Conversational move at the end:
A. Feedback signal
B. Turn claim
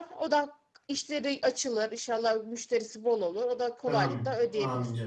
B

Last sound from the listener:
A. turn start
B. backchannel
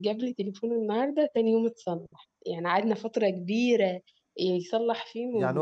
A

